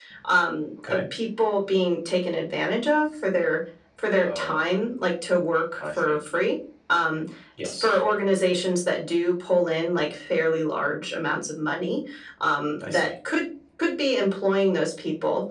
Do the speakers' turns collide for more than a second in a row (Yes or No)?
No